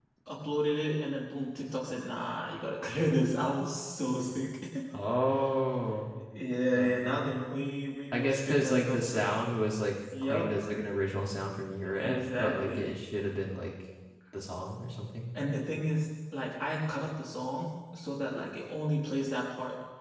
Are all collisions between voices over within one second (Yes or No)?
No